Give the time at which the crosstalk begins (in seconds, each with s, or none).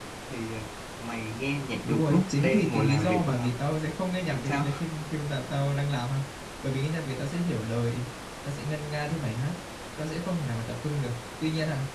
1.9 s